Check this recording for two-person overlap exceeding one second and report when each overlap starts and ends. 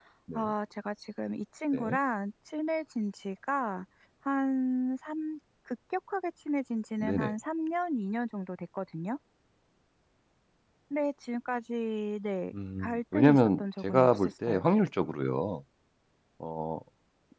12.8-14.6

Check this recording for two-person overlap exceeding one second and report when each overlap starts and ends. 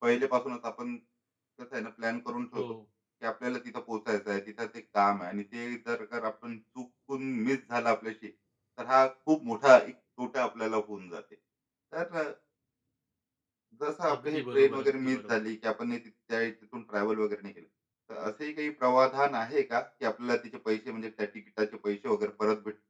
14.1-15.4

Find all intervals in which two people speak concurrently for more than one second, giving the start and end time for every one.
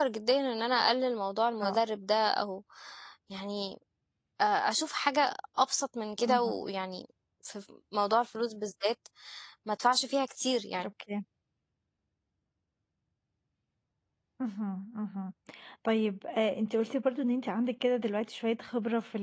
none

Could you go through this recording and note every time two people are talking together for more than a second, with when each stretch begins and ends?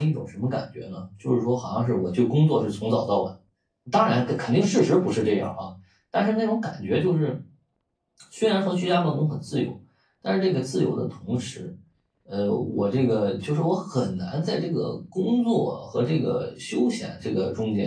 none

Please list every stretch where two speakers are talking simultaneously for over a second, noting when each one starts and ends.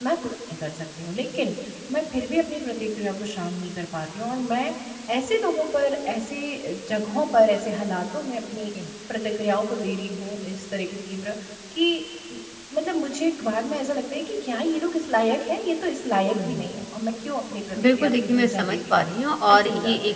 17.8-19.0

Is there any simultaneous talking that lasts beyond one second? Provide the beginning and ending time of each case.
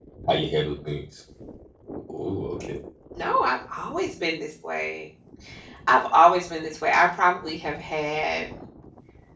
none

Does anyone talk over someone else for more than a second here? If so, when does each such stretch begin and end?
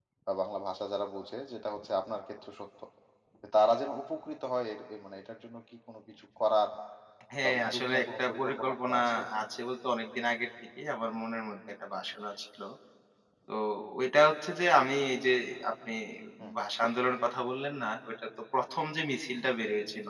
7.4-9.0

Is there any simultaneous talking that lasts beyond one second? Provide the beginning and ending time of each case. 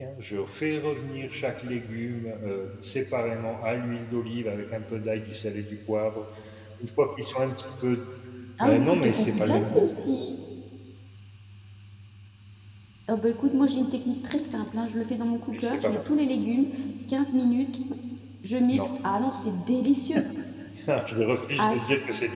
8.6-9.9

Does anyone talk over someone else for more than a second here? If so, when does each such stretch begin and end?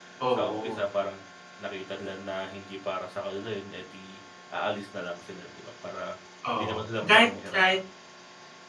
6.5-7.8

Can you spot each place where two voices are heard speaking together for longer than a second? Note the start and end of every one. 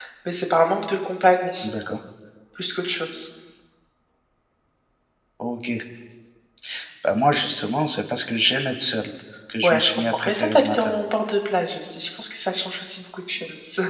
9.6-10.9

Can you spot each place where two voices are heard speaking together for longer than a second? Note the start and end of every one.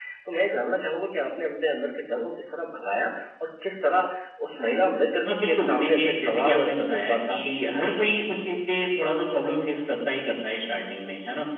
5.4-7.6

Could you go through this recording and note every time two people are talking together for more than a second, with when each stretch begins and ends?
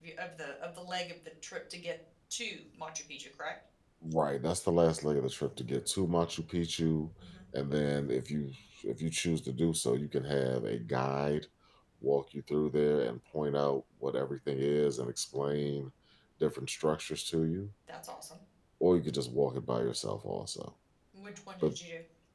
none

